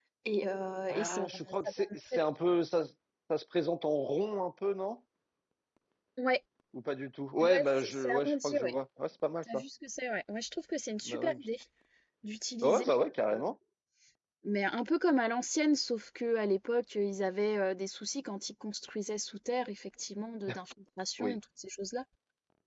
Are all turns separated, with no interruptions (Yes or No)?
No